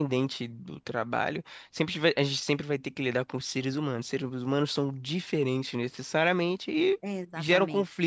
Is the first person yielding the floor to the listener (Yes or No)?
No